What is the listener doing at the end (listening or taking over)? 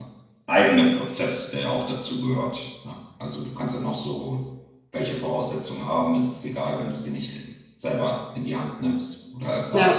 listening